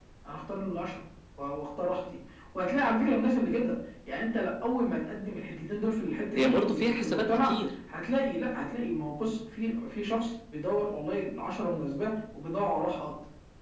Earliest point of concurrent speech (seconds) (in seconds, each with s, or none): 6.3 s